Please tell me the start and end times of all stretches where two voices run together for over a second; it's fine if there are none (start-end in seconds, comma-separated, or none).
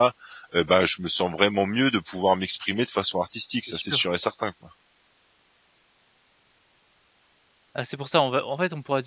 none